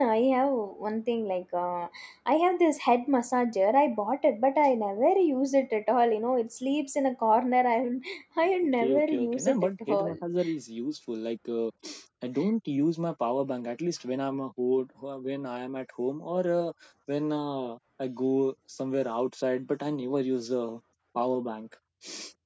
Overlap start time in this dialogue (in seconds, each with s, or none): 8.7 s